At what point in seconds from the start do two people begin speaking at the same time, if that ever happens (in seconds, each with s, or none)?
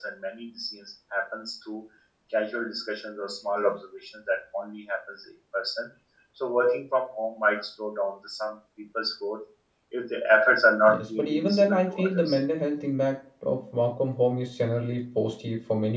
10.9 s